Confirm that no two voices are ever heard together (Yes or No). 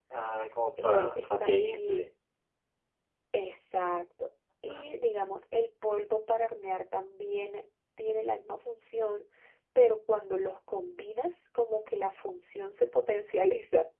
No